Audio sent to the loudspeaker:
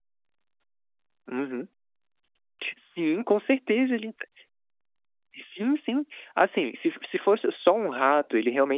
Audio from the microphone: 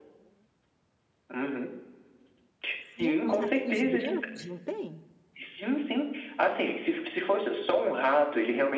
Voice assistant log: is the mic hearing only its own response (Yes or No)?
No